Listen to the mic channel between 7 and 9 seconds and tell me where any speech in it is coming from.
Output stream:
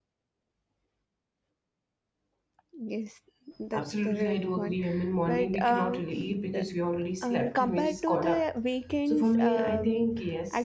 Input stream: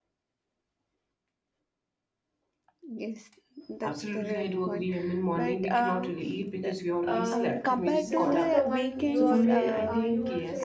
both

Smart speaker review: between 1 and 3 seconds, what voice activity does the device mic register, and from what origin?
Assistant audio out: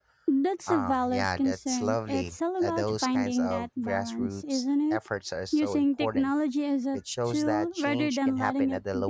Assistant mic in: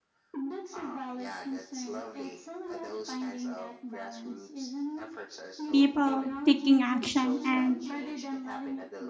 echo only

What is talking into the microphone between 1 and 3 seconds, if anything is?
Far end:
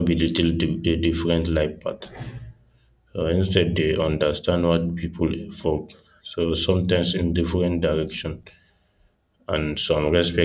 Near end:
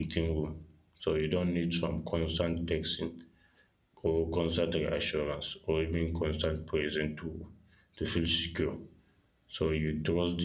user only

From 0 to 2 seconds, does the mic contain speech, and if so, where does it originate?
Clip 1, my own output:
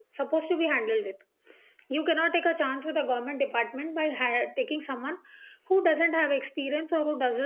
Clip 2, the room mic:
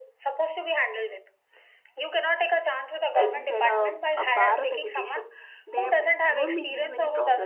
echo only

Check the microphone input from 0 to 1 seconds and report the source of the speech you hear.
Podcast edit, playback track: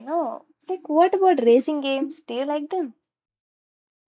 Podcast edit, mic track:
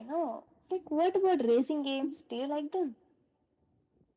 echo only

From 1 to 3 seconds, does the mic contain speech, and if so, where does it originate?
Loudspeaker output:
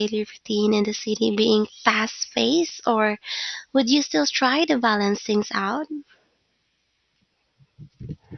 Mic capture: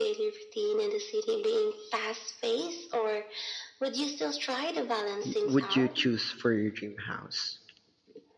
echo only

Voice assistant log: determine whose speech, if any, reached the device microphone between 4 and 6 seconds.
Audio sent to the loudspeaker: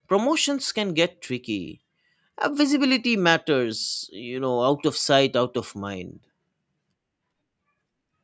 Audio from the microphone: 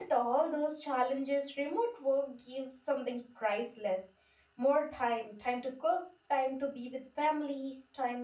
user only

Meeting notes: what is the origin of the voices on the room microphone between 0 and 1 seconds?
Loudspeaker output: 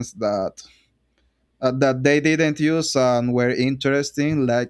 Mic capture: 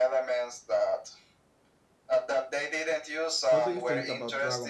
echo only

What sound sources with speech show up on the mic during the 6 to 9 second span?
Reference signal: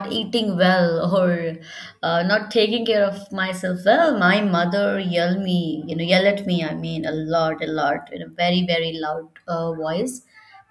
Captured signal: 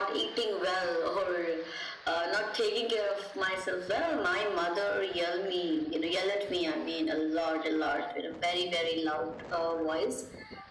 echo only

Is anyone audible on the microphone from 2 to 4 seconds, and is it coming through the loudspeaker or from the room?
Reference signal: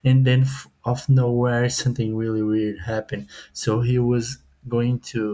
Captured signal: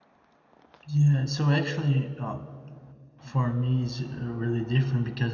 user only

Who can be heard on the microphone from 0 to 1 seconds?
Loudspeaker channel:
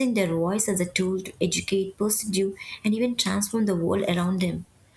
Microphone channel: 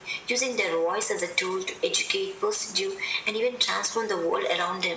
echo only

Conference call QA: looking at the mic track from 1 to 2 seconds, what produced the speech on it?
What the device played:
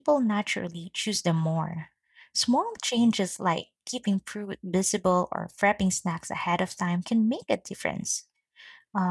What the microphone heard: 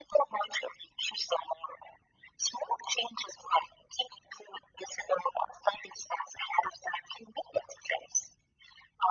echo only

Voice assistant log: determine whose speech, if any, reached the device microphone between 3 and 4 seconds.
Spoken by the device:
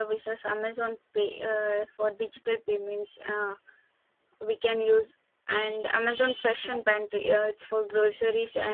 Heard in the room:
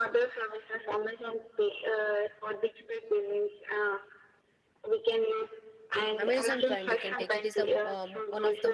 echo only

